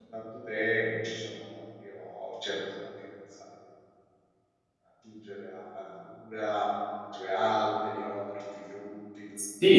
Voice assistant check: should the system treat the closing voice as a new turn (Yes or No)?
Yes